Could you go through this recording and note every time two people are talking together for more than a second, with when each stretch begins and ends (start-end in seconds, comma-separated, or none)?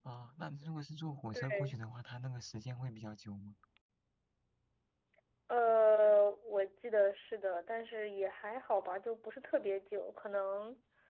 none